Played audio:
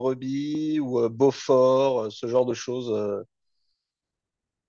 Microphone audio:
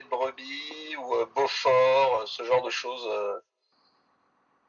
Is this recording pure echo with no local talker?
Yes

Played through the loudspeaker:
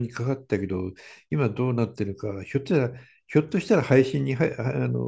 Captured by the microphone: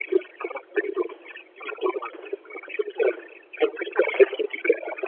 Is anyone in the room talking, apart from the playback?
No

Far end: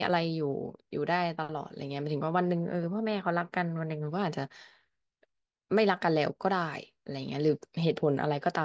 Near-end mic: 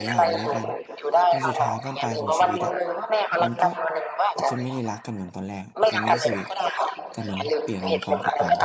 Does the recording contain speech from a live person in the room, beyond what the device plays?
Yes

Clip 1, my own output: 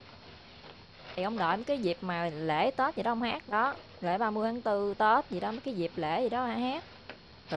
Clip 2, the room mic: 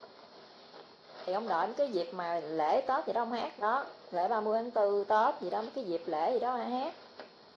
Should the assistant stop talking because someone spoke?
No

